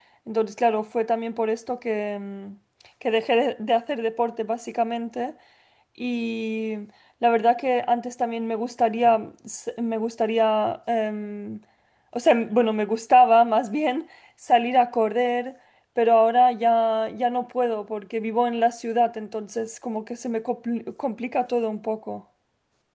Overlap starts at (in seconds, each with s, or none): none